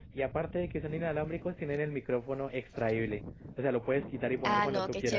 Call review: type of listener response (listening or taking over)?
taking over